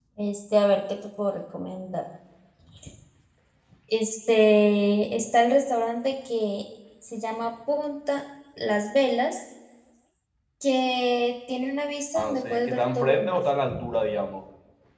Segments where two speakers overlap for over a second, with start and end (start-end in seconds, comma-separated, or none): 12.2-13.4